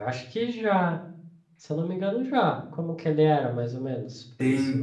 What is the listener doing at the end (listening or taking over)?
taking over